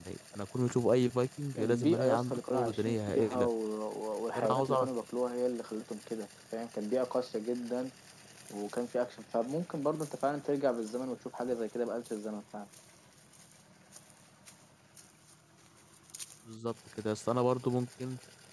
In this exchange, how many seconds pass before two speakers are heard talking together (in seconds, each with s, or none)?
1.6 s